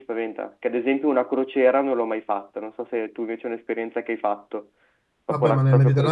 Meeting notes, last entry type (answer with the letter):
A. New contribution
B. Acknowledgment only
A